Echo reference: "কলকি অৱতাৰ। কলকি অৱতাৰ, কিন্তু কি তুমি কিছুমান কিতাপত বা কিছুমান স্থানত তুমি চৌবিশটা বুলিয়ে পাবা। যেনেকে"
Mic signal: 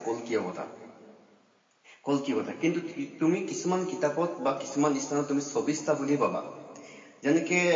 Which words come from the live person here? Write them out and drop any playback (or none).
none